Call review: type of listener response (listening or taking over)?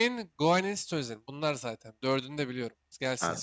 taking over